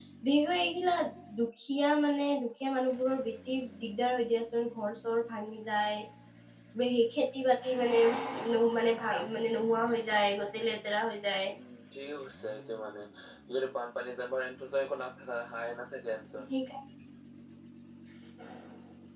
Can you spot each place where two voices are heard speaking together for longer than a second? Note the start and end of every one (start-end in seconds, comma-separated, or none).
none